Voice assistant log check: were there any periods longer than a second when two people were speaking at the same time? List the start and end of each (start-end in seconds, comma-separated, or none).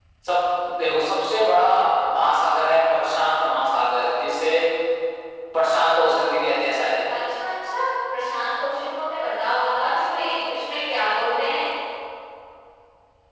none